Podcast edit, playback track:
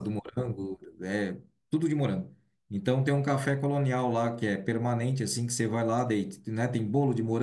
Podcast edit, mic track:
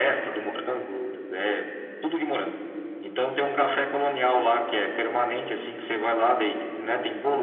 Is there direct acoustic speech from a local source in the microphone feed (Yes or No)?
No